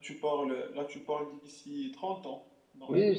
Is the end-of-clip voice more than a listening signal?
Yes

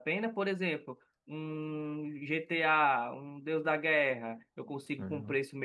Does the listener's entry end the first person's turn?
No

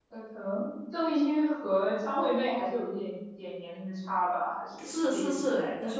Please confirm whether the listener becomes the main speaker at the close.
Yes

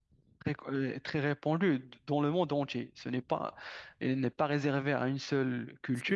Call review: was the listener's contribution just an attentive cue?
Yes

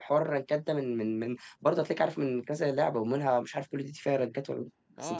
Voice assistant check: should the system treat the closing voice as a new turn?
Yes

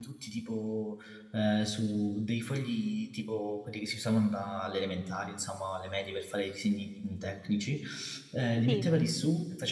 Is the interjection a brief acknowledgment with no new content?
Yes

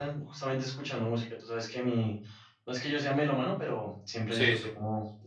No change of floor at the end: Yes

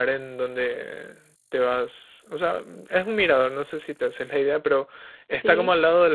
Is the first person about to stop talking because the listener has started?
No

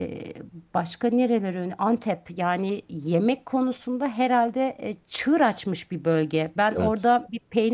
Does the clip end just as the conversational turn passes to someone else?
No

